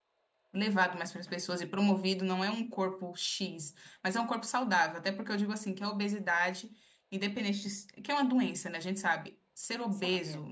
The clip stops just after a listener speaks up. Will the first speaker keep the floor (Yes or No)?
Yes